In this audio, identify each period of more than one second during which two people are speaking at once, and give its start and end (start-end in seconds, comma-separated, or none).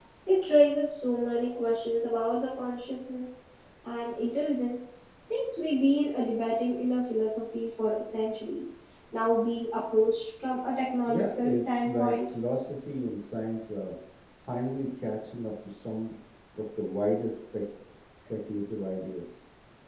11.1-12.3